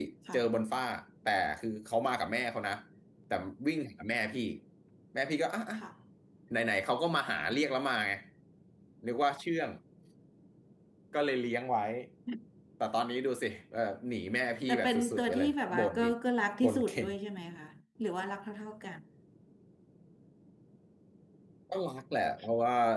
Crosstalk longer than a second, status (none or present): present